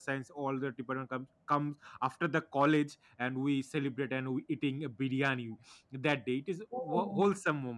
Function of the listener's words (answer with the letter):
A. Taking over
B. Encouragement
B